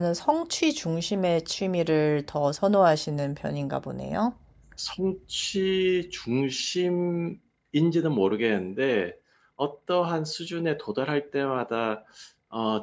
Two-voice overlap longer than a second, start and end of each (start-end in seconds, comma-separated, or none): none